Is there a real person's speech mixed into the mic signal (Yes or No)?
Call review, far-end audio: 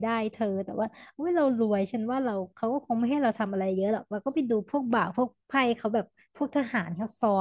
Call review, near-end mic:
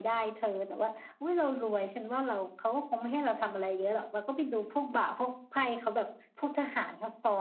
No